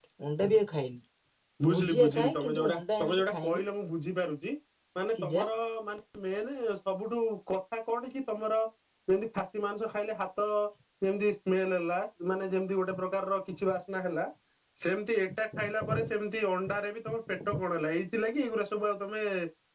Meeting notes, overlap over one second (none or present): present